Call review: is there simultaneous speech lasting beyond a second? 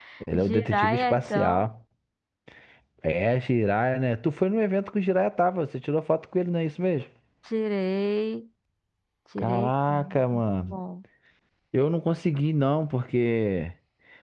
Yes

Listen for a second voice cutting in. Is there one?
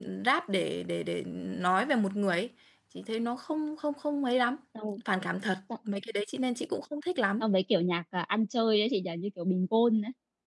No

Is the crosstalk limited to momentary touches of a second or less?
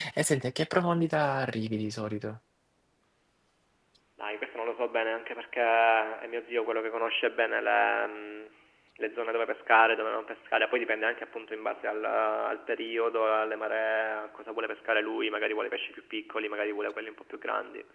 Yes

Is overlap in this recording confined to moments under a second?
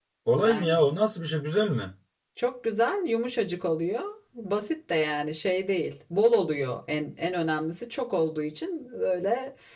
Yes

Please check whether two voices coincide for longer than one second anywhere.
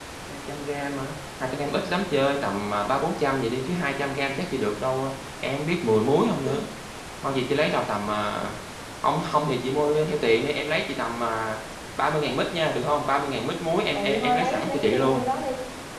Yes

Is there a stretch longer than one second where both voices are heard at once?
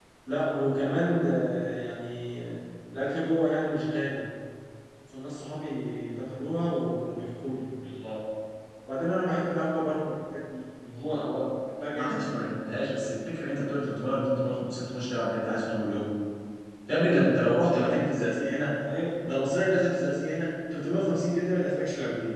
No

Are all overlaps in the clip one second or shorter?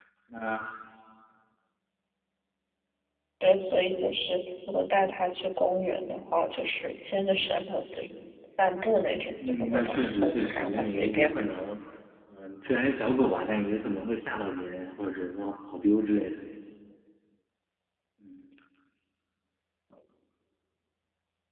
No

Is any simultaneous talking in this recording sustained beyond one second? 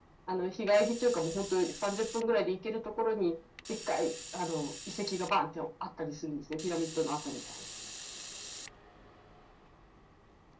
No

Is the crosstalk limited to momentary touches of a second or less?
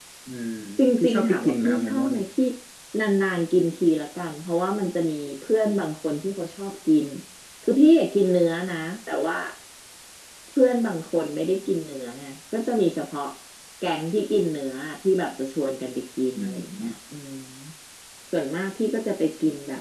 No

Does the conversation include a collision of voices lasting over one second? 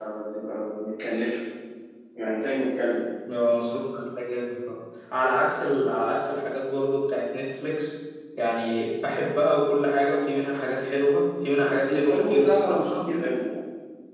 Yes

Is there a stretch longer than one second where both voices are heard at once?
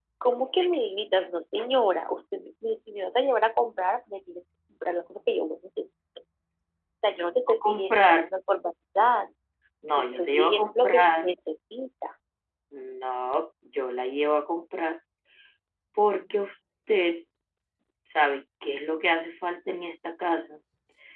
Yes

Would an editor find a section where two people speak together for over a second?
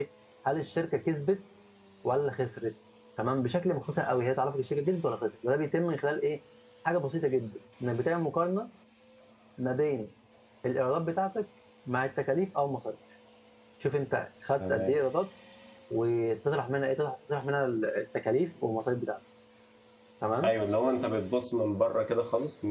No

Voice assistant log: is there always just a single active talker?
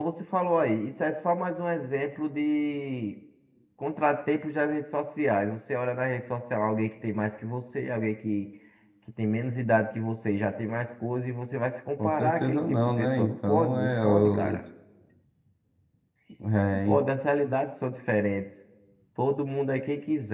No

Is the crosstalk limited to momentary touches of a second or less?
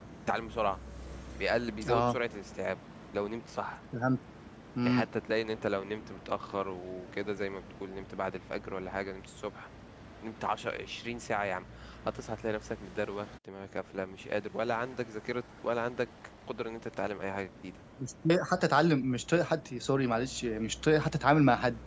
Yes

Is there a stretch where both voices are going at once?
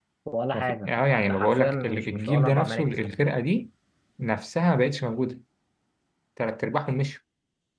Yes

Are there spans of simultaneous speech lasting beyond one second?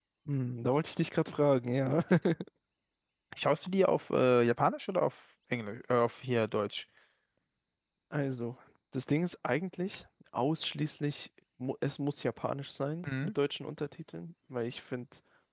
No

